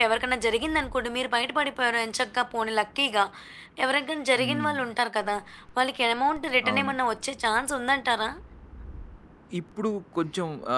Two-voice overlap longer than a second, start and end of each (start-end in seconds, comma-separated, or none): none